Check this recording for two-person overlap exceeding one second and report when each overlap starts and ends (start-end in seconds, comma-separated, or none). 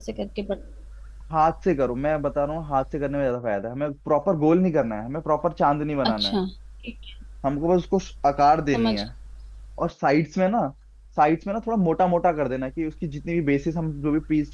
none